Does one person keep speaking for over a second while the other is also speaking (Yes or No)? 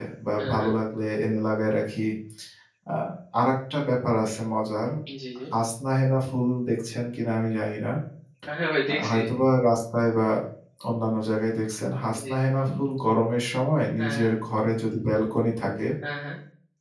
No